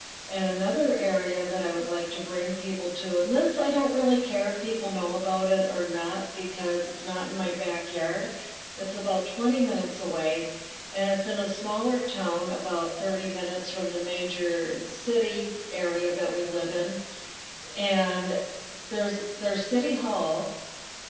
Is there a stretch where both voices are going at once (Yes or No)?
No